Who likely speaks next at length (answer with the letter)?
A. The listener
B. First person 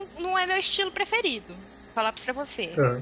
B